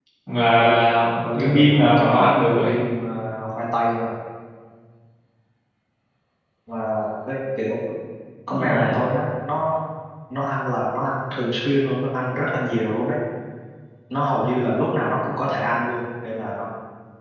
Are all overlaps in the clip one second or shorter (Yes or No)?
No